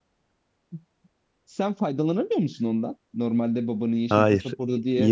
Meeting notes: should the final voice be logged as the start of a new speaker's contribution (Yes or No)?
Yes